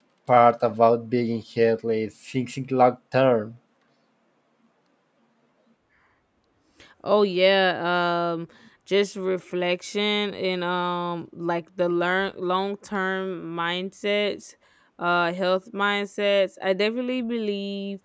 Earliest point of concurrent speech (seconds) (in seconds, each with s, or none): none